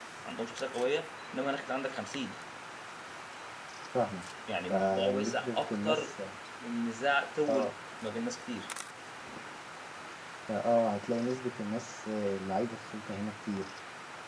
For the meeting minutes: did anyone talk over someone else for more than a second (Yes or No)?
Yes